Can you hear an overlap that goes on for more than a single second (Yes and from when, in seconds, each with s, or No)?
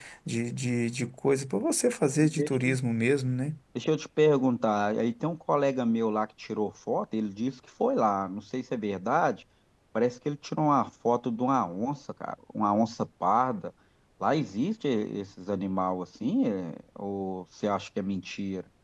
No